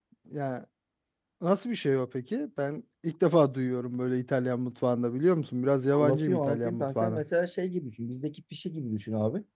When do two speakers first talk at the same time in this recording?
5.9 s

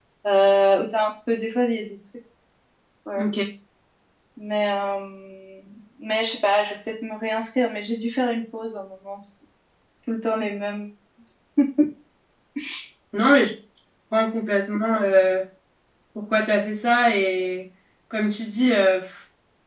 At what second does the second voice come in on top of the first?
none

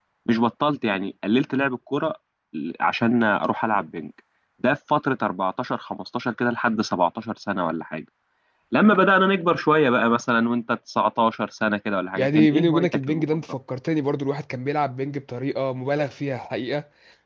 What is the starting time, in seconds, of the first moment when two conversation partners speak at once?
12.2 s

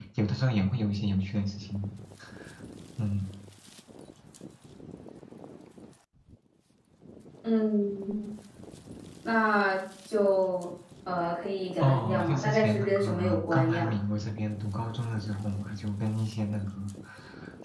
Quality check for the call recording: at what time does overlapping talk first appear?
11.8 s

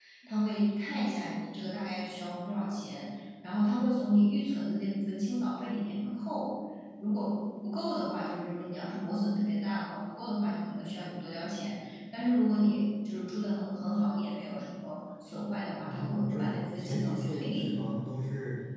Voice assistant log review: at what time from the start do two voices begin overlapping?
15.9 s

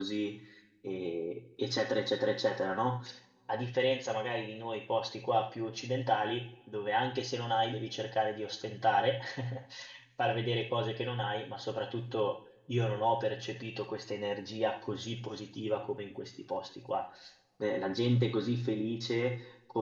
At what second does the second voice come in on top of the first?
none

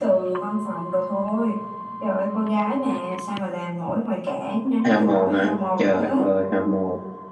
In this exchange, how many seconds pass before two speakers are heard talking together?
4.8 s

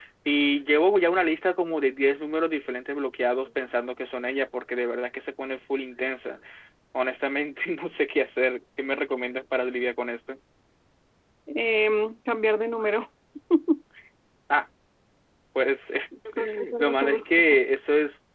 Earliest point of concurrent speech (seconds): 16.4 s

